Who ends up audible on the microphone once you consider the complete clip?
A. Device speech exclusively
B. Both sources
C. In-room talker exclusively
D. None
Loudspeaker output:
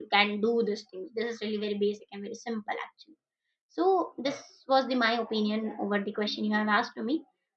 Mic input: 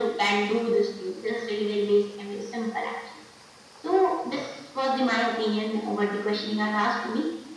A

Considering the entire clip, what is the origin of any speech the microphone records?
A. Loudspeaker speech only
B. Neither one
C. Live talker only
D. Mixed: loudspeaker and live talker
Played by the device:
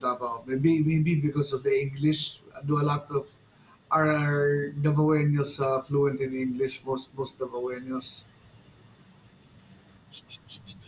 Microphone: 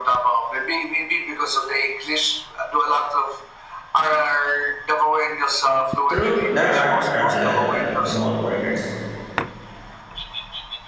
D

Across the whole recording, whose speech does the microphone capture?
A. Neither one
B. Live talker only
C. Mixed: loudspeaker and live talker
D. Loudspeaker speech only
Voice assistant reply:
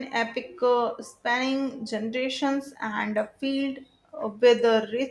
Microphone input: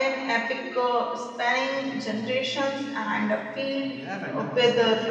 C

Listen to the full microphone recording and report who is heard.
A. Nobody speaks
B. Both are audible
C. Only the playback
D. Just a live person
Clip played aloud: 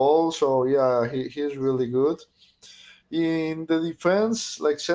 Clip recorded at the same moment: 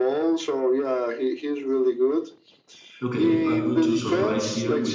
B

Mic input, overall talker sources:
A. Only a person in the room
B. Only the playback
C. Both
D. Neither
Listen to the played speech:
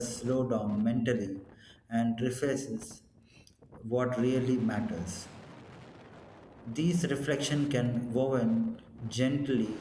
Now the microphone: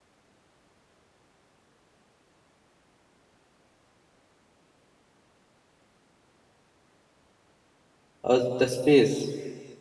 A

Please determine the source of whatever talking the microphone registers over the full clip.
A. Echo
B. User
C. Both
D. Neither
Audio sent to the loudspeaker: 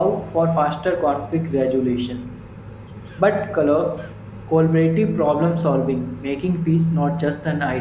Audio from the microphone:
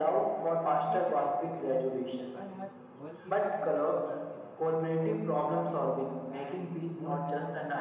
C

